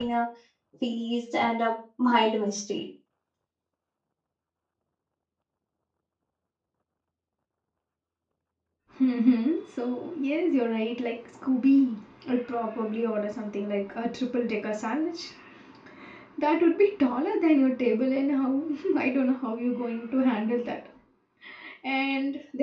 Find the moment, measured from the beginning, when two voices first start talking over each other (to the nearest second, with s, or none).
none